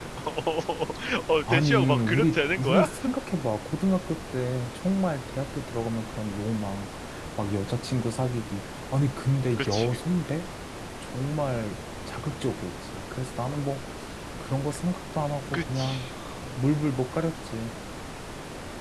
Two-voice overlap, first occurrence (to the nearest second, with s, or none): 1 s